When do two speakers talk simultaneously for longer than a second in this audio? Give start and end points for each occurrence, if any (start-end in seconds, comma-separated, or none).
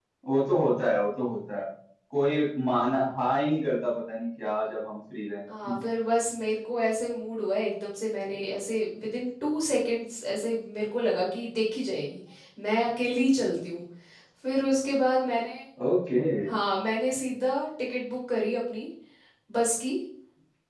none